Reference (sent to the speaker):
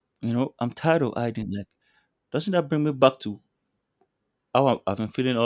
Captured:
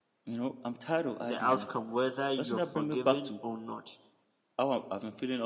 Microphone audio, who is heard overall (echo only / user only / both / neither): both